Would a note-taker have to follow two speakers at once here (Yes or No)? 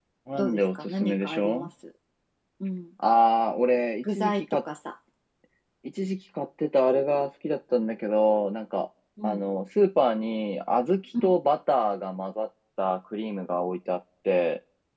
Yes